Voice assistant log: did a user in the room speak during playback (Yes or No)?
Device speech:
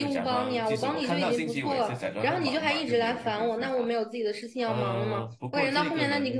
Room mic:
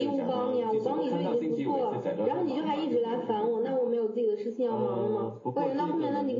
No